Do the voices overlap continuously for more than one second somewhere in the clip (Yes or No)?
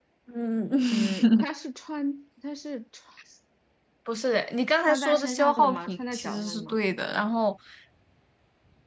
Yes